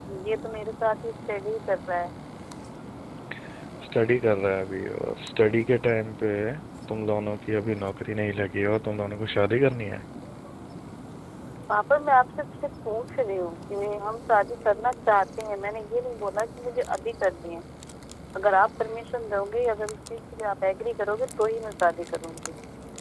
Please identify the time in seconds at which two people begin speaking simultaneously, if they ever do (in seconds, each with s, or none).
none